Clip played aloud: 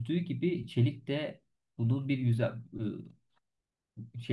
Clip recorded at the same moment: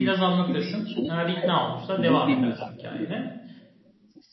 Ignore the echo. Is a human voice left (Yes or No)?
Yes